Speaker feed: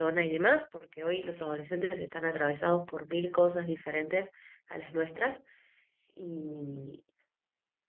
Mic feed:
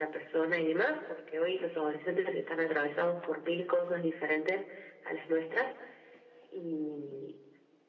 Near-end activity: none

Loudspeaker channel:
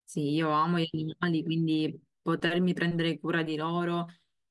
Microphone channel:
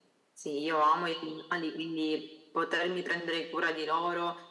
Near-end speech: none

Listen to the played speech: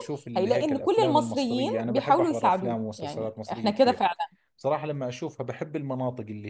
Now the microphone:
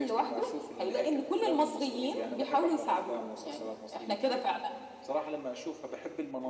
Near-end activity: none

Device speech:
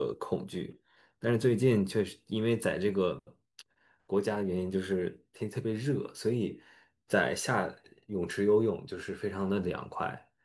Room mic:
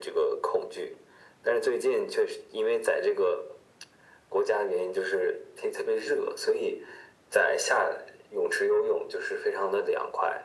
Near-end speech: none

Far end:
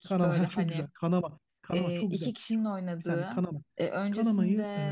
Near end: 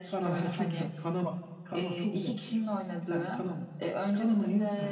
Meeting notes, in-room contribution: none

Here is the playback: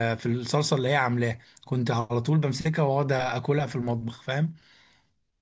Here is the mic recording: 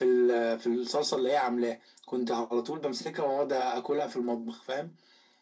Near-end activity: none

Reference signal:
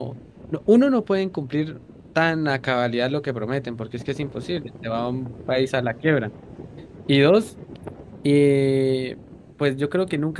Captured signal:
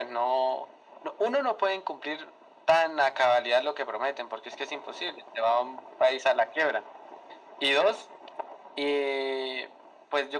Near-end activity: none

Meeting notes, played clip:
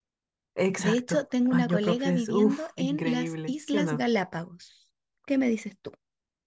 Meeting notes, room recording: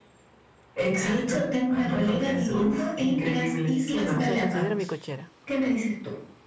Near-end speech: present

